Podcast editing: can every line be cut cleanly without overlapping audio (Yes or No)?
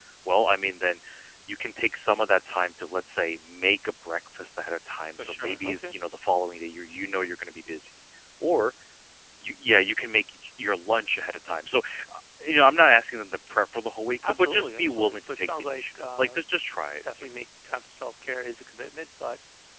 No